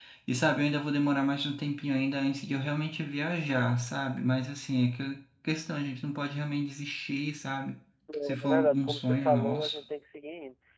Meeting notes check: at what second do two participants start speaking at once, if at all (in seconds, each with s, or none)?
8.3 s